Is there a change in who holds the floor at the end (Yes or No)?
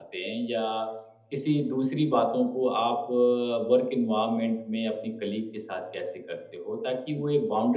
No